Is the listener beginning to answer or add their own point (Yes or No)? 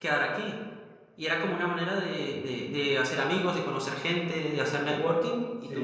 No